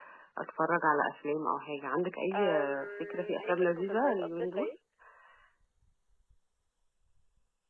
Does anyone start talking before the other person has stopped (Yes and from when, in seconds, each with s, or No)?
Yes, from 2.3 s